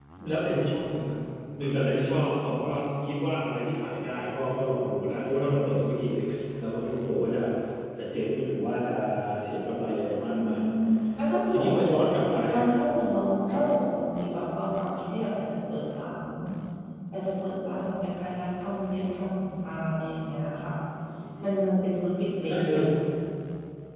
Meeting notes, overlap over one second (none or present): none